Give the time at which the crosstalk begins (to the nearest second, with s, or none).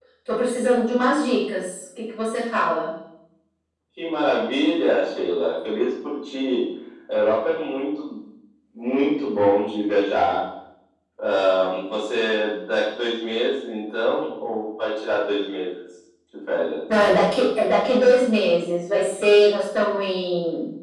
none